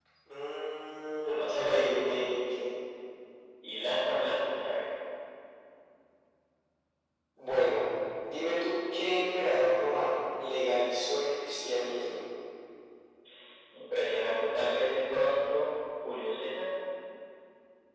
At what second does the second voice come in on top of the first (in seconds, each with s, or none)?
1.3 s